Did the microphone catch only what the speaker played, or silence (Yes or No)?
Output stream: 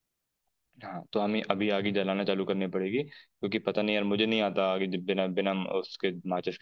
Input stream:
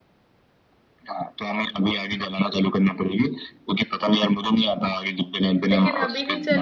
No